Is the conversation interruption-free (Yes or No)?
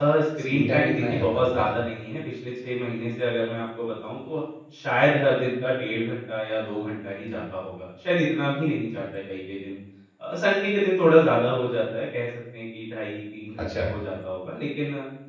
No